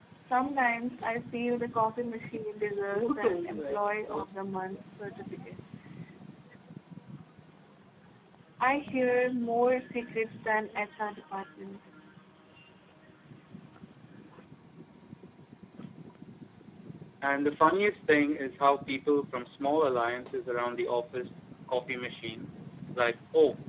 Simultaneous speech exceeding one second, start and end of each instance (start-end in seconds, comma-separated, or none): 2.9-4.2